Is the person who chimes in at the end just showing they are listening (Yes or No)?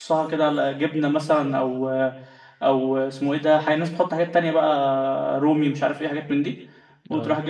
Yes